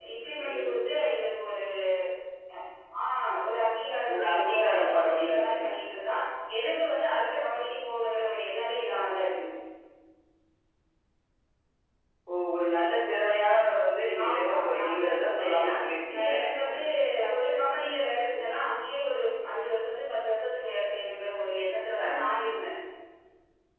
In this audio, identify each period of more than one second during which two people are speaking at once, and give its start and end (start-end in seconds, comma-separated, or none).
4.1-5.7, 14.2-15.7